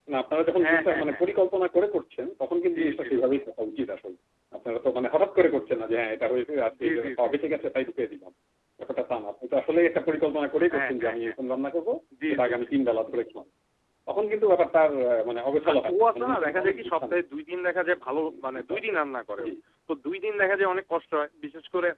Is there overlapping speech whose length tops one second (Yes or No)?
Yes